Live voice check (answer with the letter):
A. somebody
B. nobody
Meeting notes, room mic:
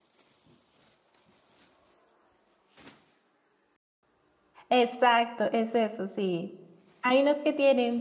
A